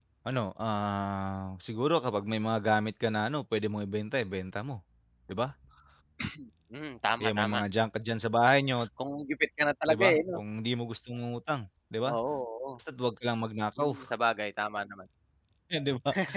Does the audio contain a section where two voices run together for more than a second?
No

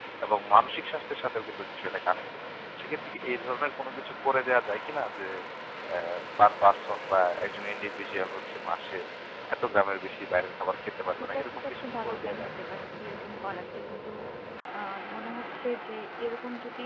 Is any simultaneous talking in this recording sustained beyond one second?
Yes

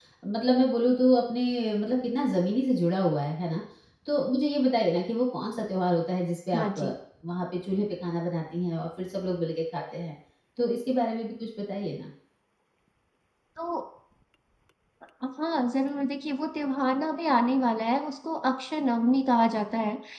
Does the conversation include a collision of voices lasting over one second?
No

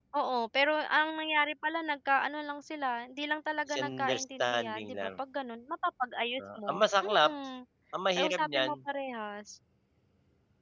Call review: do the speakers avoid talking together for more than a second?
No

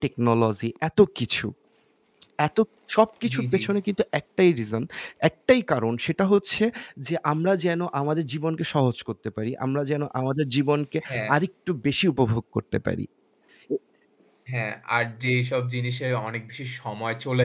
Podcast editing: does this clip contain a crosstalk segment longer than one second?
No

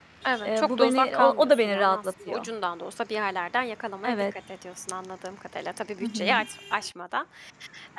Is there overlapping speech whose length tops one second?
Yes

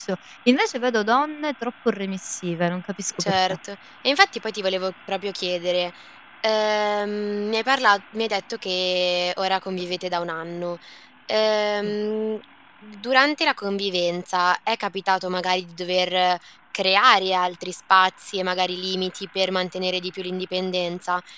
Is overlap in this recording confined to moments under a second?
Yes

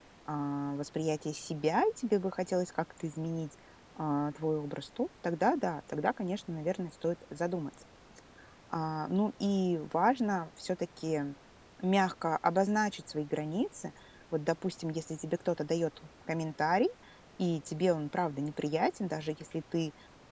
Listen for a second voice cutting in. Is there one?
No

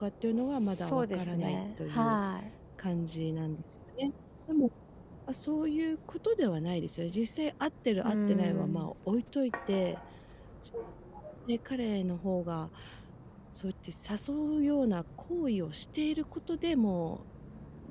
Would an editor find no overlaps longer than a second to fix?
No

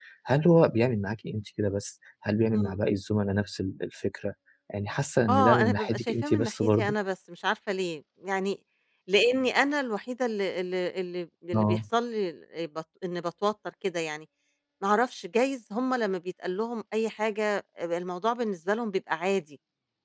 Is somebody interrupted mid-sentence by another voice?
Yes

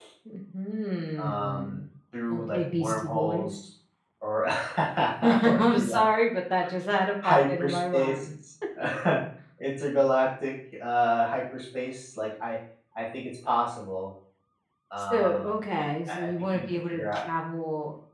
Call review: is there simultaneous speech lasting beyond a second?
Yes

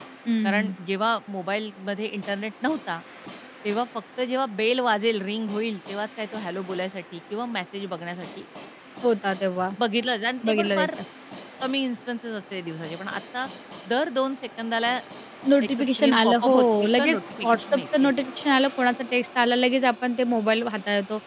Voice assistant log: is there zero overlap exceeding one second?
No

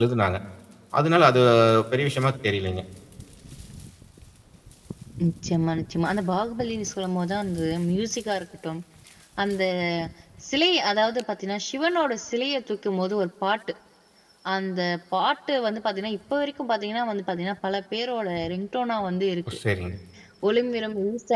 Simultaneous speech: No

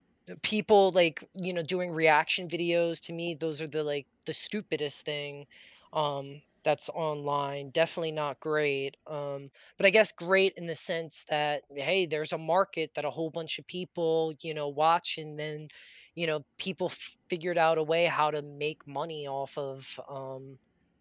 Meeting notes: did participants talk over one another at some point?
No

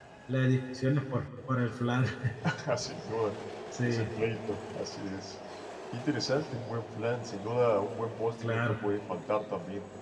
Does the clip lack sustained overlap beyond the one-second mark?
Yes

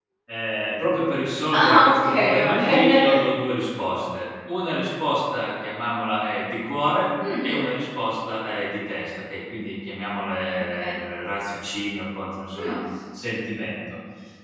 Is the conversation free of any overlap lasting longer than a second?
No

